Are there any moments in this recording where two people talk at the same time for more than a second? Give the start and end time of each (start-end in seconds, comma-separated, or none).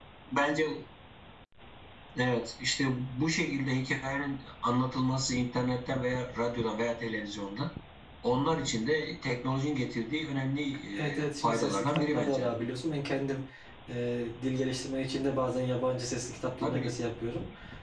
11.1-12.5